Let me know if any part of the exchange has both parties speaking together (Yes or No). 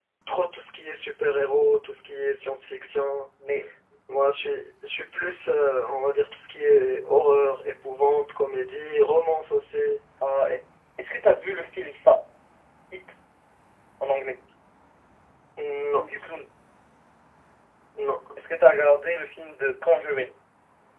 No